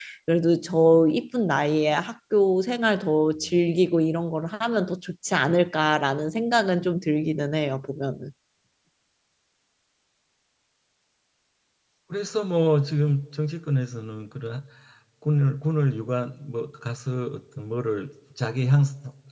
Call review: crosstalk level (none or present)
none